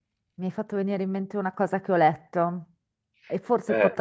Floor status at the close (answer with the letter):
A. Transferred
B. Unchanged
B